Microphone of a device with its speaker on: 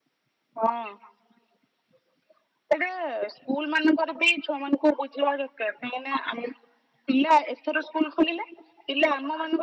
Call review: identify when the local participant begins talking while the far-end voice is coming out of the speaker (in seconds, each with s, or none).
none